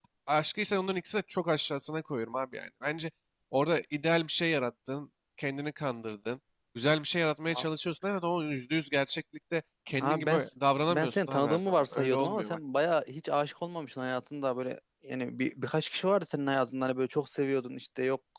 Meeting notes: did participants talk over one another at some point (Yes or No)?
Yes